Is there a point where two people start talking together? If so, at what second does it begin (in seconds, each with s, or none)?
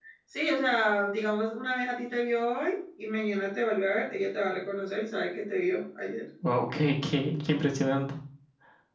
none